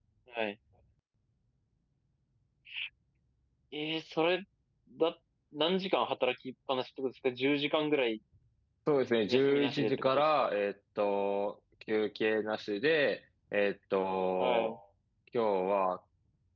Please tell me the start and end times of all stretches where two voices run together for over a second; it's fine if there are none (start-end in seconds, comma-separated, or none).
9.3-10.5